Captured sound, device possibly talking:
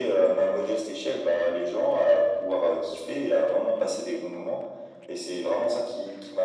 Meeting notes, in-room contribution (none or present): none